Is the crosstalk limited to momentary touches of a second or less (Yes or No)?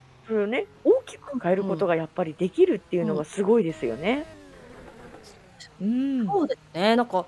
Yes